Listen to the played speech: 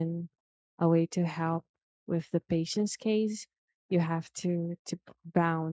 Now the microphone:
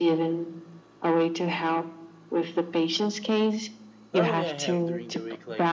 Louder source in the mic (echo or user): echo